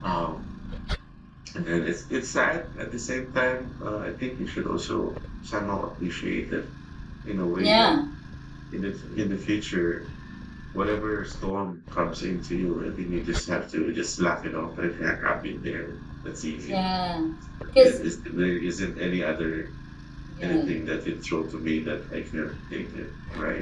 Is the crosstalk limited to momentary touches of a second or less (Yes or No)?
Yes